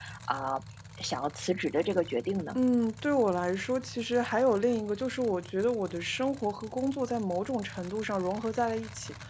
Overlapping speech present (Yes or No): No